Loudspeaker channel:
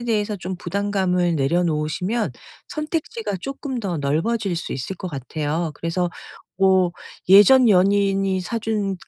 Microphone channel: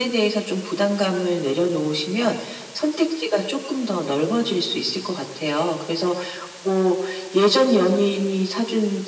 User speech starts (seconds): none

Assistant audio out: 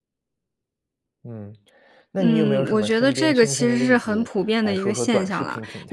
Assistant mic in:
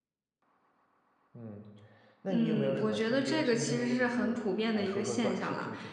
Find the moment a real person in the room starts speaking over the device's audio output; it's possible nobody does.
none

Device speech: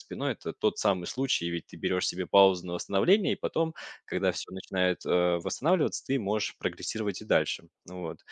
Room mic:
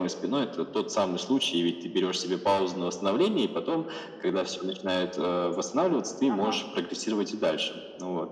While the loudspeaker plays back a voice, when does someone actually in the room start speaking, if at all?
6.3 s

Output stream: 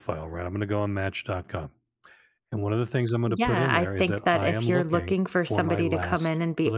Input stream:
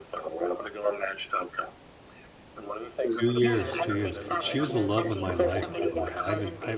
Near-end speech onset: 3.2 s

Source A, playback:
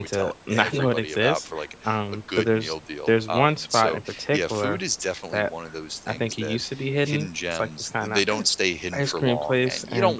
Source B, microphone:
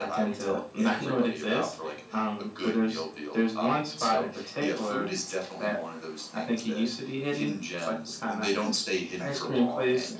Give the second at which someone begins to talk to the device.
none

